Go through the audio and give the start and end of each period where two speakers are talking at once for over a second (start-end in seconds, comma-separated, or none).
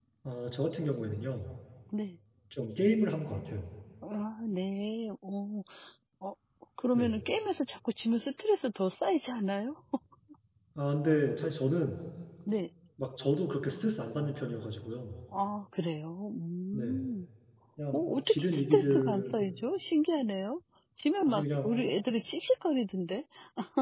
17.9-19.5